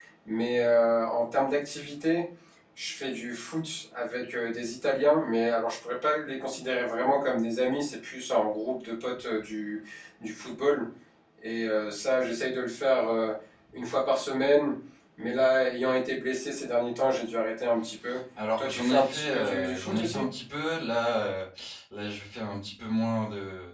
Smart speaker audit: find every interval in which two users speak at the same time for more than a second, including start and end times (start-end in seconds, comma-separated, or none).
18.6-20.2